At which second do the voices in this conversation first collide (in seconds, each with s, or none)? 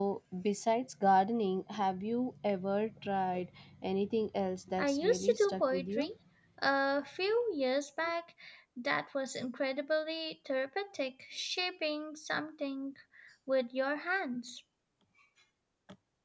4.8 s